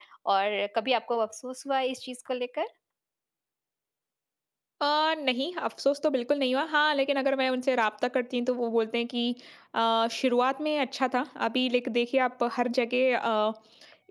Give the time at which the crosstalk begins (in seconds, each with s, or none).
none